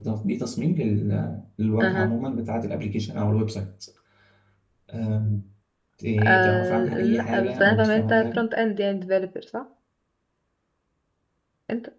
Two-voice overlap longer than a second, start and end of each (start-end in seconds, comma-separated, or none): 6.2-8.4